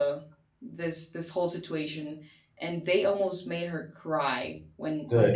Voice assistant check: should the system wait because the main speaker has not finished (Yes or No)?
Yes